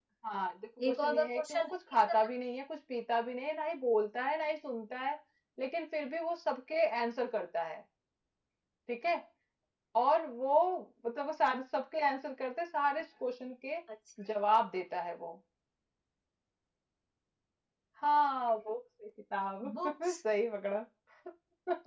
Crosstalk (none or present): present